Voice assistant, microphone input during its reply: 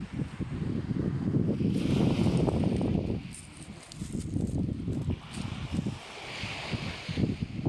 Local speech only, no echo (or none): none